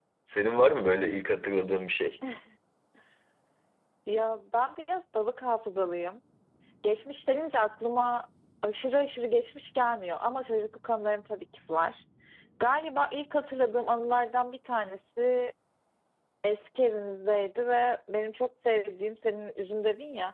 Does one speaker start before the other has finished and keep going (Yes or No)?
No